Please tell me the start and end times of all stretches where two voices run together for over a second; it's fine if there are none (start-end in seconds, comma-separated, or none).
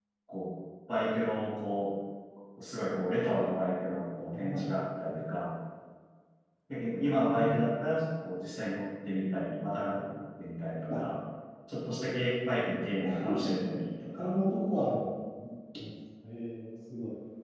none